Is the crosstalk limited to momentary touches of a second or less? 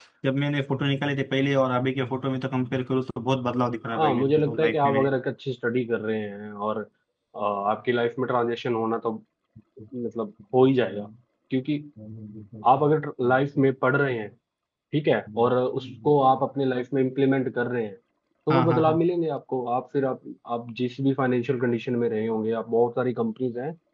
No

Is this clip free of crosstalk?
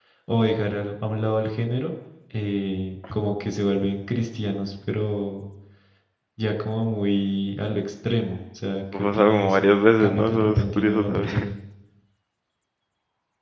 No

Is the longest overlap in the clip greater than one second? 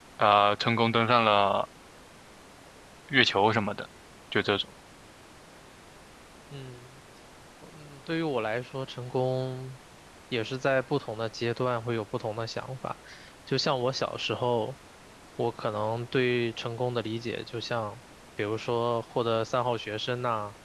No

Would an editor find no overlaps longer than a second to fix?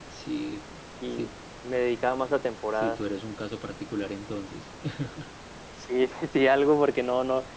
Yes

